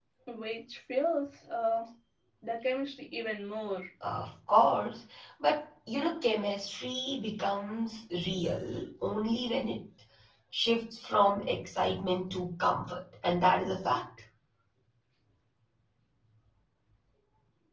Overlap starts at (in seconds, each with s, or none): none